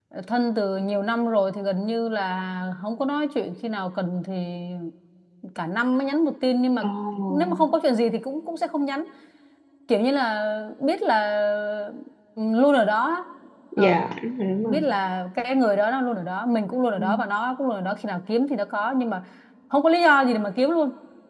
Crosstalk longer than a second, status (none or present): none